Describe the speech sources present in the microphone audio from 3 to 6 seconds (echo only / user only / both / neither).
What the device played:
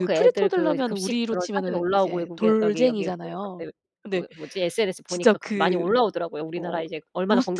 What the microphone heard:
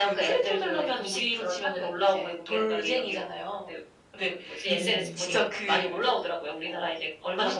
both